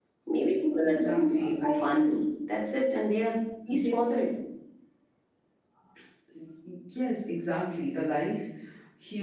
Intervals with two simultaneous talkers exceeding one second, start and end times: 0.8-2.0

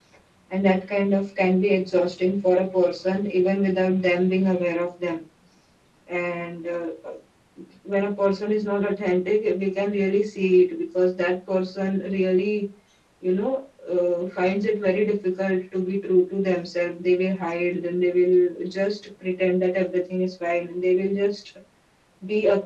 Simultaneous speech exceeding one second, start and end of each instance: none

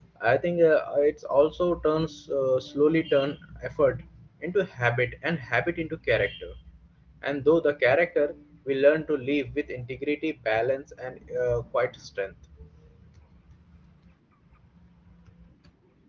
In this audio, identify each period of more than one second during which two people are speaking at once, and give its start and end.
none

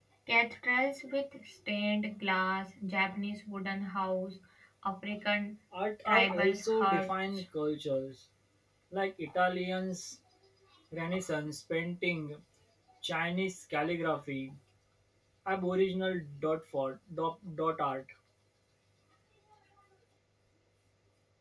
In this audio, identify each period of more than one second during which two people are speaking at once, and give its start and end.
6.0-7.4

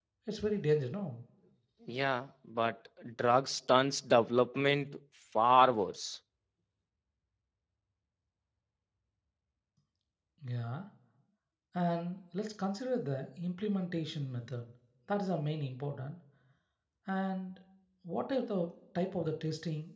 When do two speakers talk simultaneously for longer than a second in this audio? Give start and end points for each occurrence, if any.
none

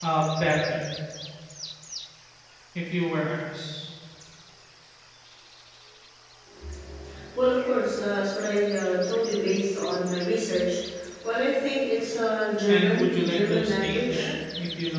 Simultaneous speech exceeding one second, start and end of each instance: 12.7-14.3

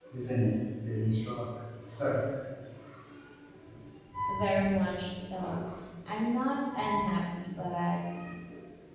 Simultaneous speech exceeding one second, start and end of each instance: none

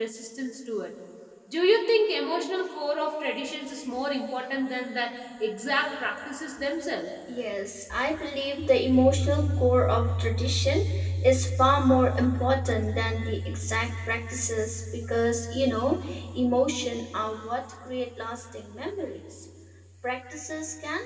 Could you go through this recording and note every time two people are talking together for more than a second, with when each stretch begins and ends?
none

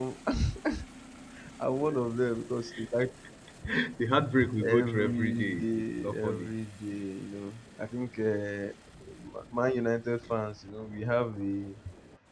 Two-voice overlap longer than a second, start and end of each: 4.8-6.5

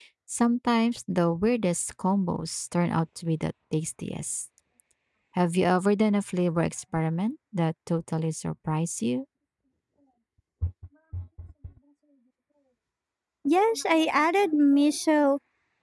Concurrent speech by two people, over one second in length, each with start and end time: none

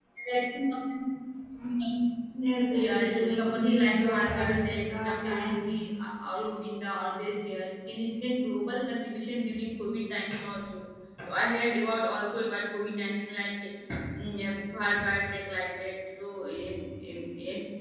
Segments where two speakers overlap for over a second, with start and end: 2.7-5.7

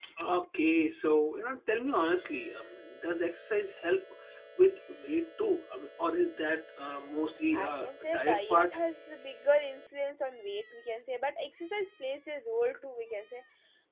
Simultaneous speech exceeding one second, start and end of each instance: 7.5-8.8

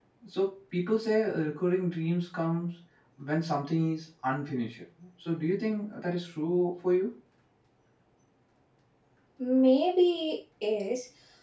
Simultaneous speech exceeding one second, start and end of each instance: none

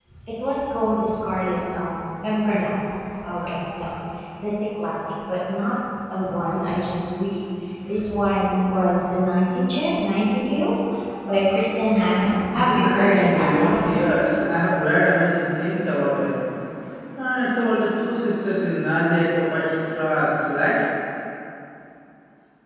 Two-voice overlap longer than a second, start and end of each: 12.5-13.8

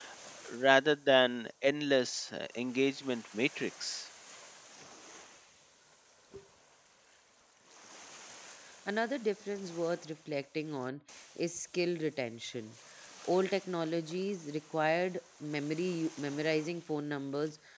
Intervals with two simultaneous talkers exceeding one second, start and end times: none

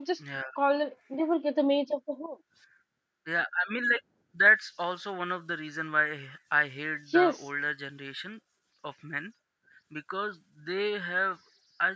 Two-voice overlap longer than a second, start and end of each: none

